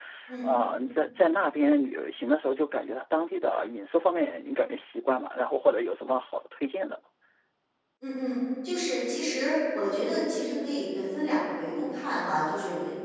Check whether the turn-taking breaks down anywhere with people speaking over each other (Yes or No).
No